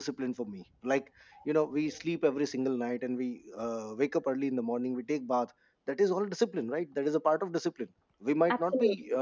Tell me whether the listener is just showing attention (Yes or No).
Yes